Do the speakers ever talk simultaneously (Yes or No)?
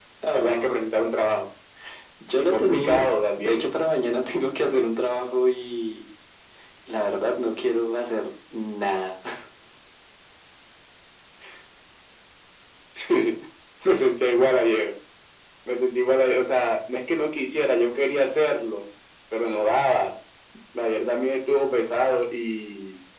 Yes